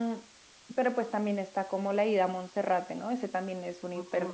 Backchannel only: No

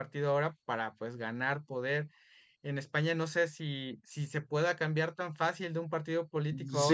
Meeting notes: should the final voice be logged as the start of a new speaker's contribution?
Yes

